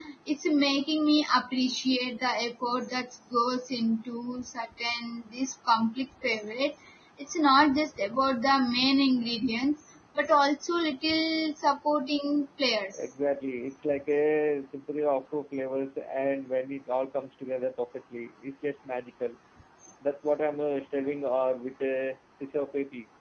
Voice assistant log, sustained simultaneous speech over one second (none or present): none